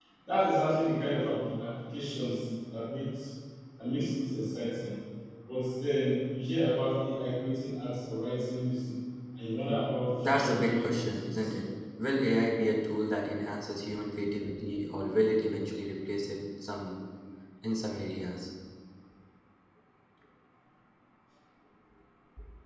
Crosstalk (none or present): present